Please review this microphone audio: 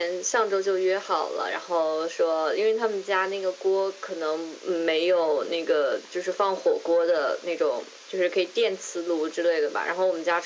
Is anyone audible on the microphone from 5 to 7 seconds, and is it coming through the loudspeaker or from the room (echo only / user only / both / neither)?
echo only